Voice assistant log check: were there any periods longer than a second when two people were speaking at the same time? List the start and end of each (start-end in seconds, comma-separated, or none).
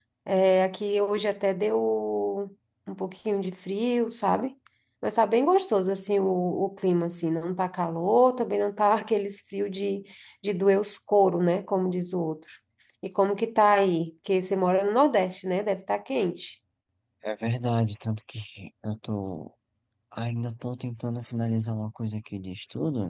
none